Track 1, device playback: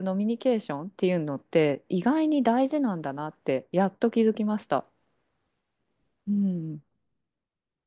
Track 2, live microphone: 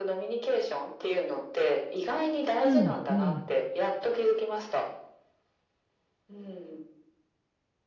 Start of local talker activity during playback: 2.6 s

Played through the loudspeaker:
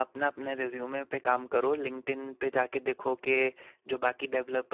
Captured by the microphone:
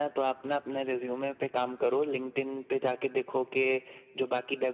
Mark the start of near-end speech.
none

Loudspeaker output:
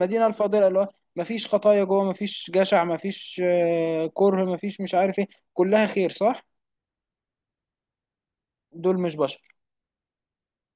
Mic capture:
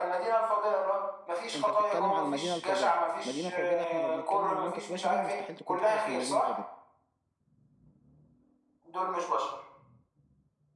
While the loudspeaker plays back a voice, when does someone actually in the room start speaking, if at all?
1.5 s

